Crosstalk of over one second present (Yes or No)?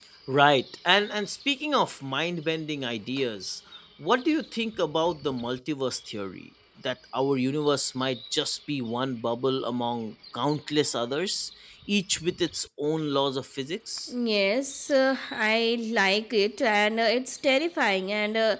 No